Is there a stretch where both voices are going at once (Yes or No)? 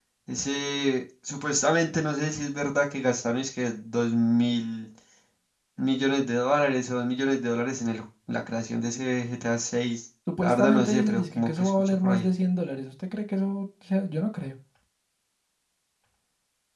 Yes